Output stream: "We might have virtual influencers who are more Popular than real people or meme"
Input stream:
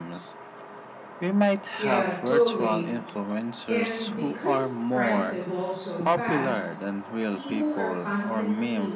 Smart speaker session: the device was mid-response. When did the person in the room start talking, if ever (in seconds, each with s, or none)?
1.7 s